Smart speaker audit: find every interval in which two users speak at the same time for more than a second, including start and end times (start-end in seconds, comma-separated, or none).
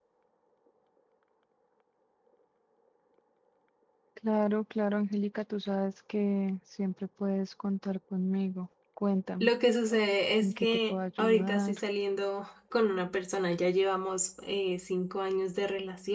10.4-11.8